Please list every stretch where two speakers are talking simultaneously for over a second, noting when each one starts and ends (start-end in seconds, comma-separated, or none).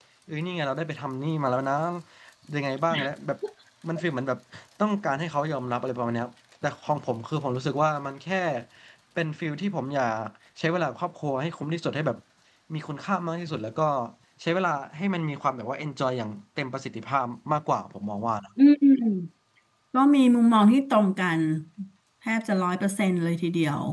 none